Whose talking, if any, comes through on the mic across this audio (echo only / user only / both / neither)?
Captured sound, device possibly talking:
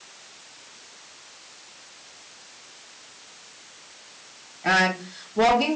user only